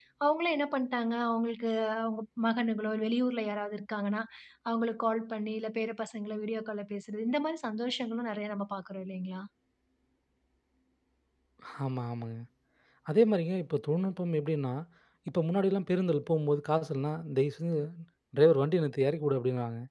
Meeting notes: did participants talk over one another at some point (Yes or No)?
No